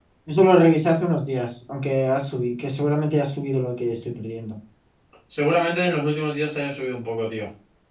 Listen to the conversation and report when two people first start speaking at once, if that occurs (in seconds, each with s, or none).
none